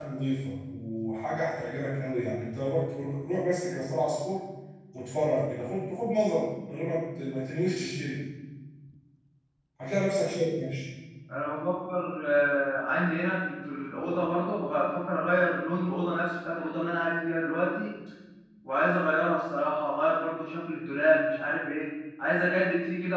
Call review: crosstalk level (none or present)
none